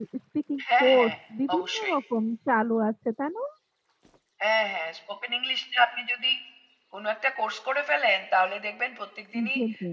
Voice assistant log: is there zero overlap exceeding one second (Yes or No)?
Yes